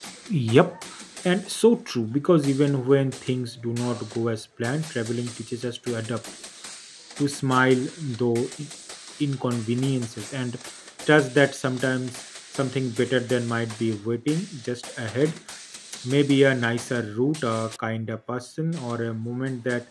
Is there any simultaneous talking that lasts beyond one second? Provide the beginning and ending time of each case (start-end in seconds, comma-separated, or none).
none